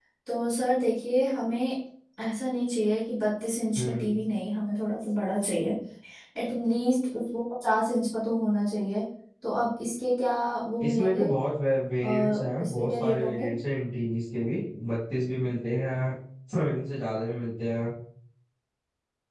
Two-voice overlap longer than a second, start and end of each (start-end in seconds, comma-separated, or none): 12.0-13.5